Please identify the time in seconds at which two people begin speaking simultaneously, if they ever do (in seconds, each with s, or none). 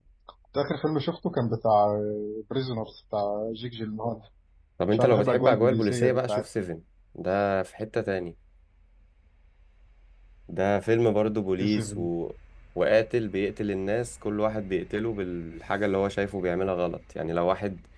4.9 s